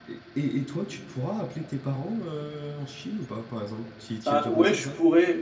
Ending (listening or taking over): taking over